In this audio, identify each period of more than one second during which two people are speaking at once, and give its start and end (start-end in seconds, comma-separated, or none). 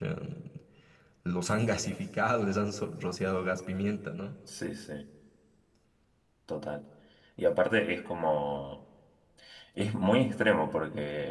none